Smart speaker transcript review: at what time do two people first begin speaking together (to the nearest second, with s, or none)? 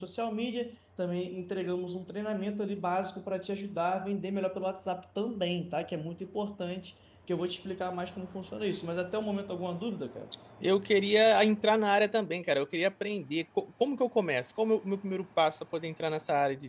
none